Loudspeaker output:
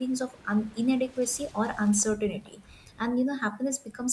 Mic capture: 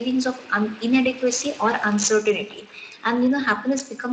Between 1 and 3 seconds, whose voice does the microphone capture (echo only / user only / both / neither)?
echo only